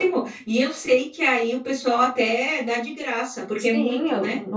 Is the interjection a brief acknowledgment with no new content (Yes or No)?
No